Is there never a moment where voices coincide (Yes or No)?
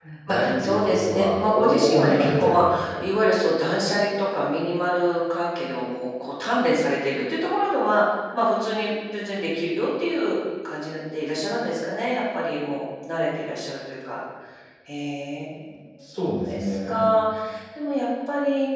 No